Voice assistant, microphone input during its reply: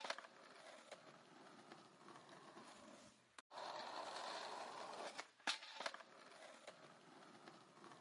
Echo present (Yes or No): No